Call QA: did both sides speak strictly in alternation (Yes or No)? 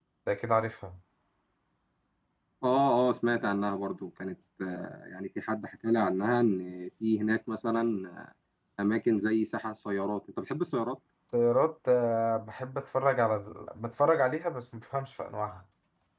Yes